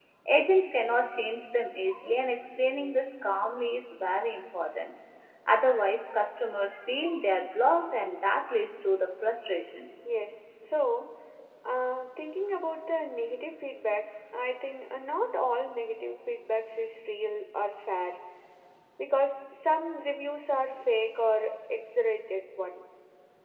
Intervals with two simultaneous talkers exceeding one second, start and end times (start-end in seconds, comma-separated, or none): none